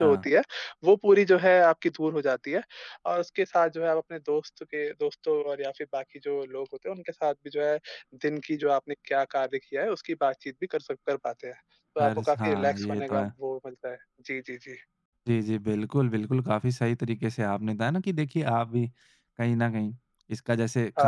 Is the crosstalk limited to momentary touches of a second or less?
No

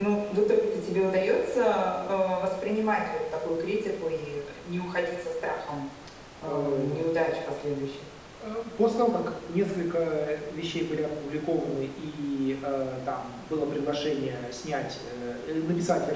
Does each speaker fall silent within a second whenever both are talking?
Yes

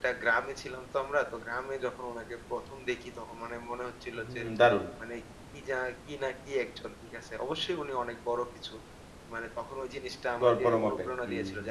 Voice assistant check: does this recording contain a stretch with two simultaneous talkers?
Yes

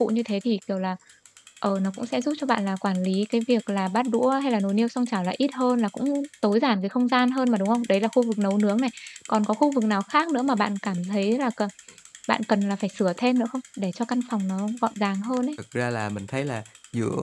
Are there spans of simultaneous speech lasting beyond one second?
No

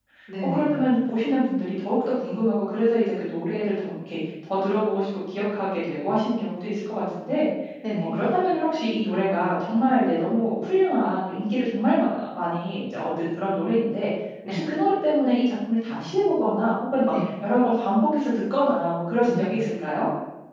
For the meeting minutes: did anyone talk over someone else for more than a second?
No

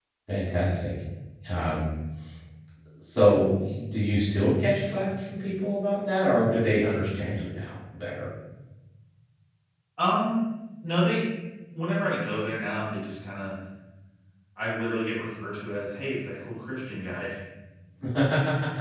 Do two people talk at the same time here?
No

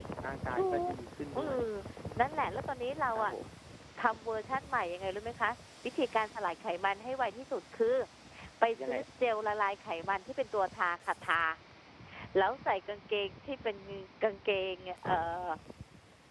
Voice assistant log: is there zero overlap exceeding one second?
Yes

